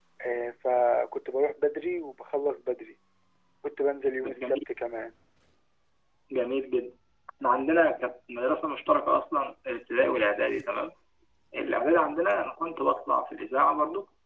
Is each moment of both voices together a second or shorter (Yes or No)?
Yes